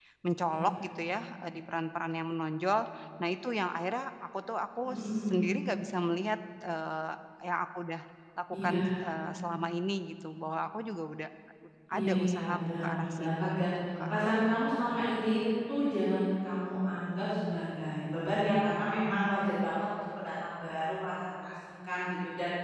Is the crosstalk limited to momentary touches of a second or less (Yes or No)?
No